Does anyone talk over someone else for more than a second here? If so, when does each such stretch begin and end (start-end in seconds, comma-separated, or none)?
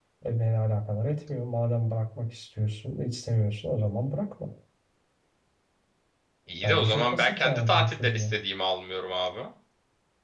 6.6-8.2